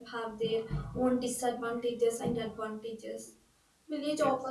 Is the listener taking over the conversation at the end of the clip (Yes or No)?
No